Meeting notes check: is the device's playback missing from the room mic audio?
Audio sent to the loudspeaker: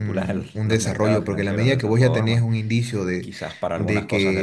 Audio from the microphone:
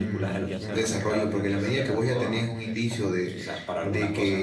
No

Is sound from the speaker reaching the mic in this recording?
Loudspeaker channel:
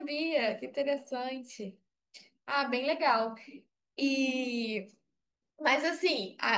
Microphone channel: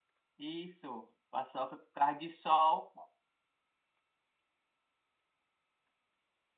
No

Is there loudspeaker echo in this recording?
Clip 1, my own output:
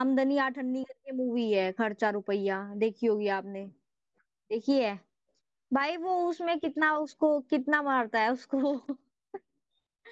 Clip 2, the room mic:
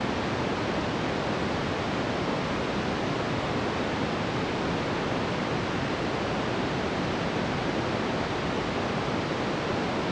No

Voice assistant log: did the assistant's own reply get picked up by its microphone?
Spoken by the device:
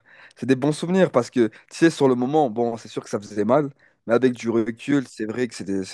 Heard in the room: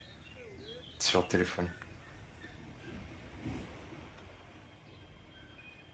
No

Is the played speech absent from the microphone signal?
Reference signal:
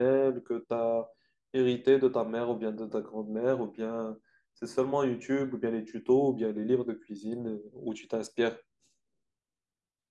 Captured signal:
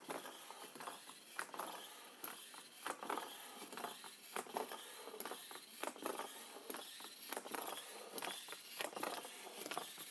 Yes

